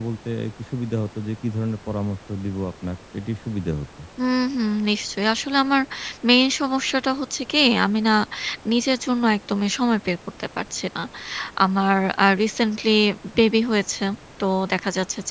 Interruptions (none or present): none